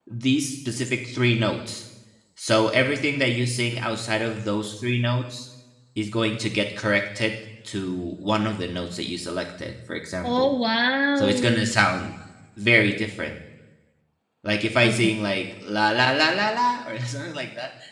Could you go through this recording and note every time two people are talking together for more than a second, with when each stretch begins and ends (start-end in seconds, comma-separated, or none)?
none